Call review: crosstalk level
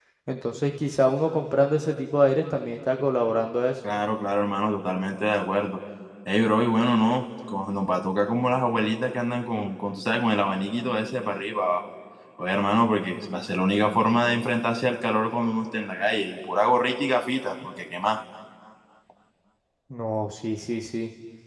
none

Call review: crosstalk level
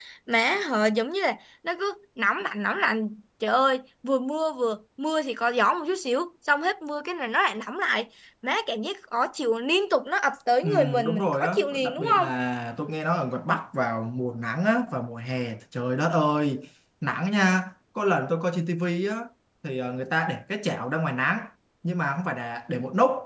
present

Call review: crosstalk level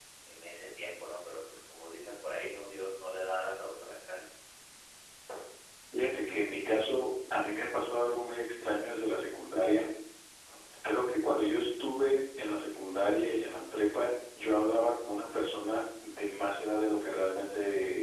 none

